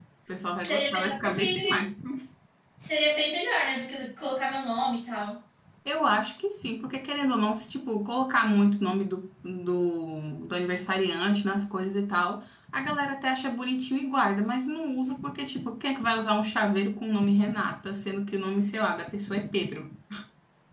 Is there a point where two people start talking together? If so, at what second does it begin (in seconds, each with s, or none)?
0.6 s